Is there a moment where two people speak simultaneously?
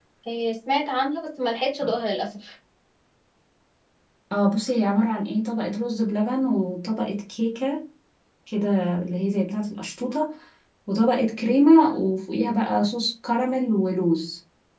No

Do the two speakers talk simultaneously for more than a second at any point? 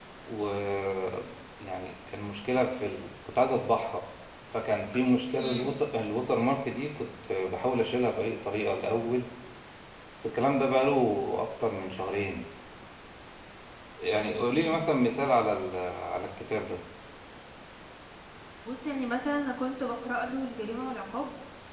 No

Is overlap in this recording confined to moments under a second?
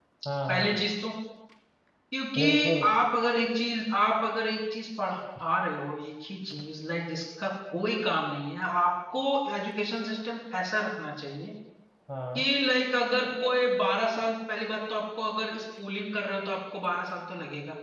Yes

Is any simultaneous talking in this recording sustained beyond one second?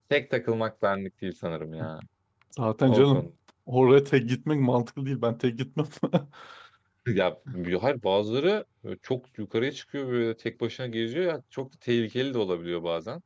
No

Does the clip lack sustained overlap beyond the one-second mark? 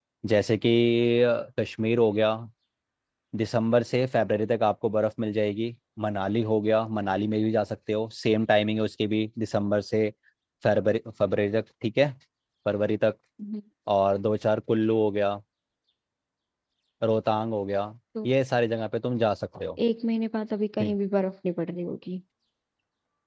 Yes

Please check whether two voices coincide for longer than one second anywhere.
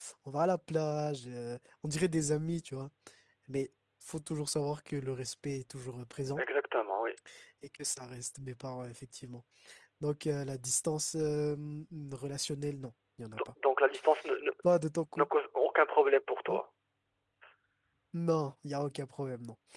No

